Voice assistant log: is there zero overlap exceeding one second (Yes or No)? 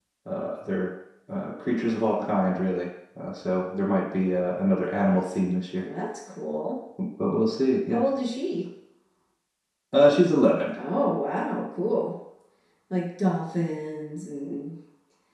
Yes